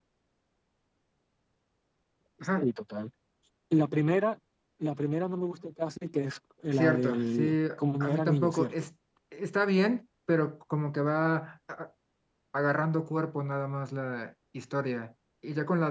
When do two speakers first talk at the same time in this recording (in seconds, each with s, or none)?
6.7 s